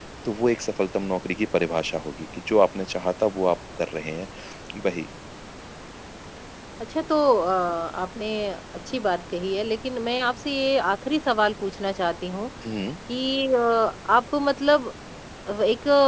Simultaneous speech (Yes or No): No